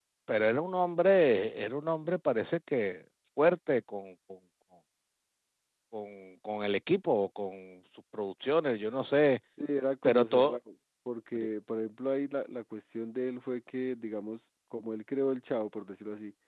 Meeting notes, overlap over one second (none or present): none